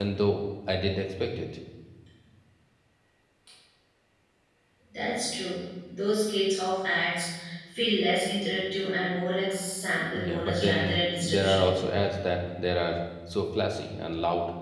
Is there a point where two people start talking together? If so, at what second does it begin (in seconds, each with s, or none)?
10.1 s